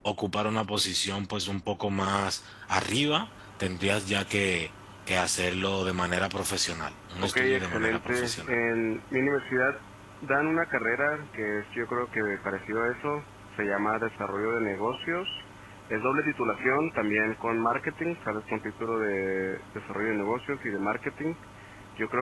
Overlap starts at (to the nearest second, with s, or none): 7 s